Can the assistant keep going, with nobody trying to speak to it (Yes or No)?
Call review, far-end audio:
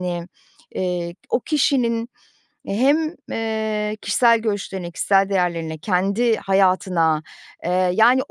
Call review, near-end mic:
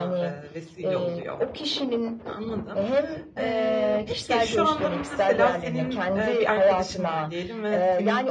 No